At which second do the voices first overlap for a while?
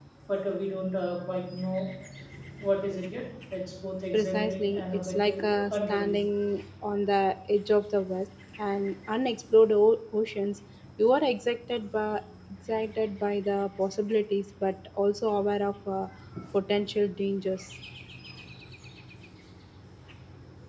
4 s

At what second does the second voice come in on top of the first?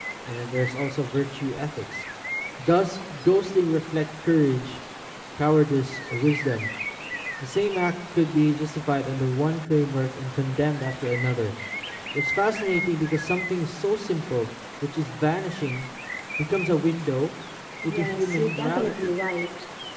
18 s

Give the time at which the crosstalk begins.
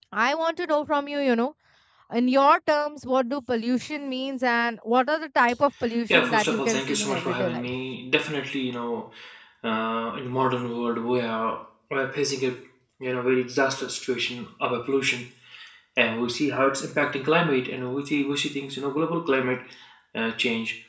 6 s

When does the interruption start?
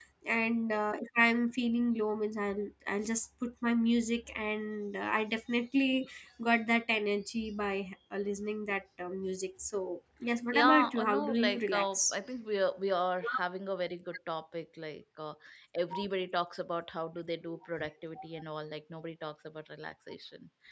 11 s

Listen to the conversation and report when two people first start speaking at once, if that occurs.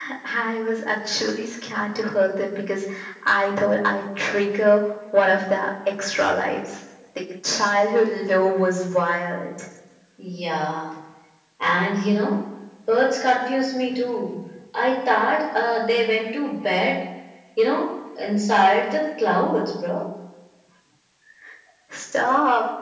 none

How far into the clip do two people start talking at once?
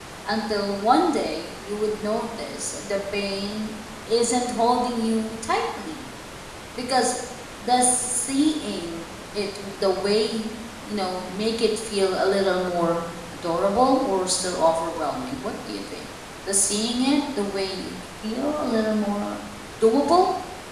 none

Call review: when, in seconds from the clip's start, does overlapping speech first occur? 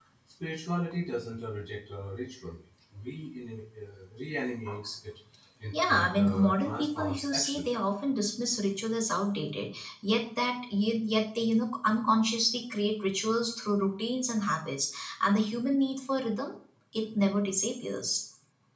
6 s

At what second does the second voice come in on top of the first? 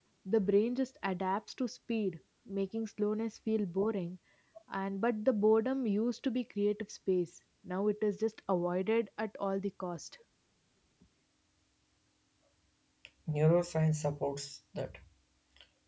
none

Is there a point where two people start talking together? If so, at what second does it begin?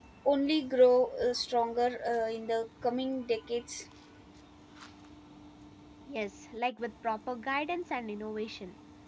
none

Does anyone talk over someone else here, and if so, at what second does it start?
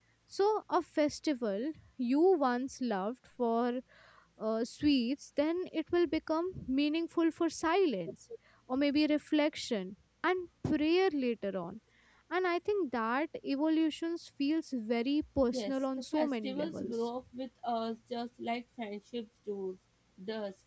16 s

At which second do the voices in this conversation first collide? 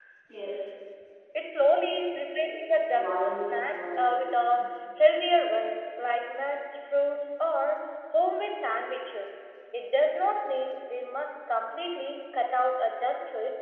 3 s

